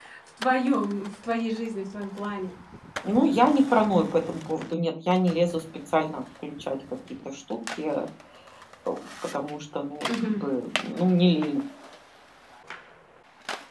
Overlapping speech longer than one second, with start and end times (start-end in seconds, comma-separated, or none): none